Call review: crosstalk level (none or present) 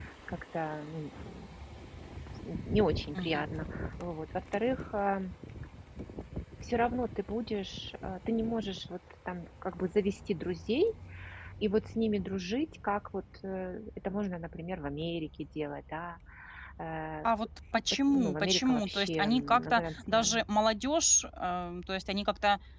present